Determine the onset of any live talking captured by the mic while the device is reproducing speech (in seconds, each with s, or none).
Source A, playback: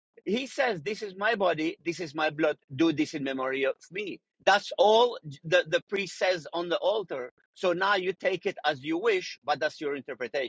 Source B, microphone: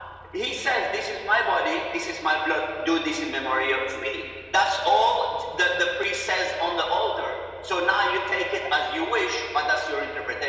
none